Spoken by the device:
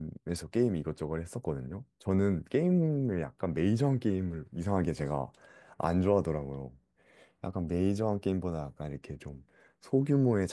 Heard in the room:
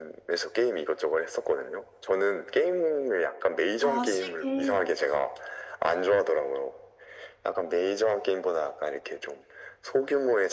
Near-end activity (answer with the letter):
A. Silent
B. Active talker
B